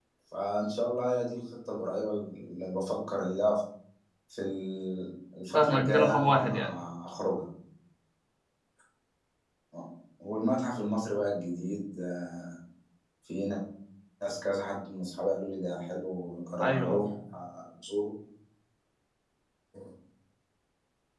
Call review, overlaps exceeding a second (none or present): present